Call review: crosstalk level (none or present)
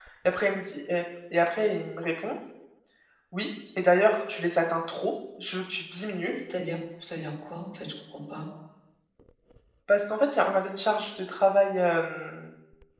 none